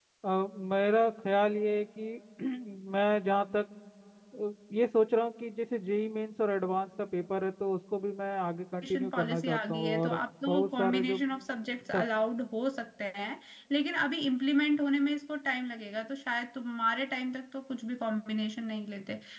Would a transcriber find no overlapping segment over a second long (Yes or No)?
No